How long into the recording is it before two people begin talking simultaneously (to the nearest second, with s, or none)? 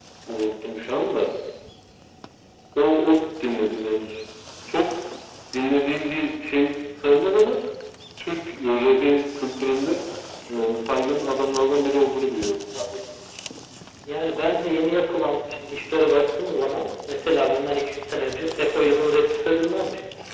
none